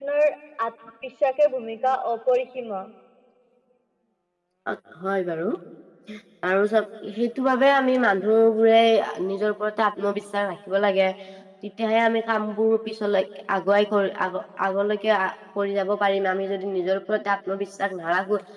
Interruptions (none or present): none